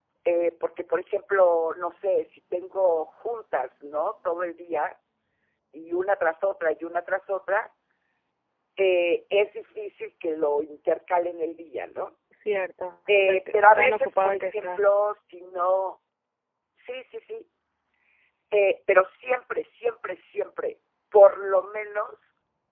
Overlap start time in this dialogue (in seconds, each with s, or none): 13.1 s